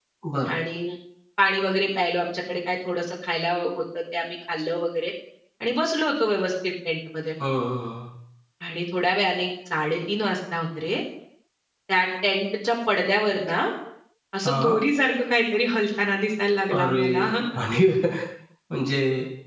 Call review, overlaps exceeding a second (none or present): none